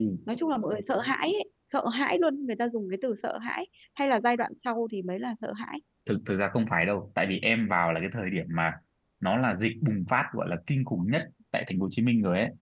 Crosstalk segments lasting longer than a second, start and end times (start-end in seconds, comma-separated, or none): none